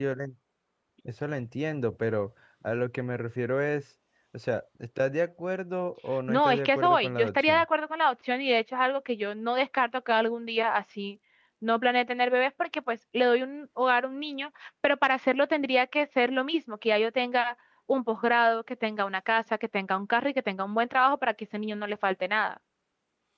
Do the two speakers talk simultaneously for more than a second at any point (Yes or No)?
Yes